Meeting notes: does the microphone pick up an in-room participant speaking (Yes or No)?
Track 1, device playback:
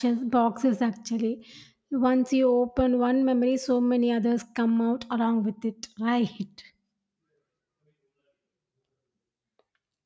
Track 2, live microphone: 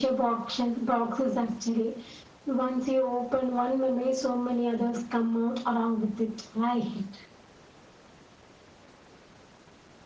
No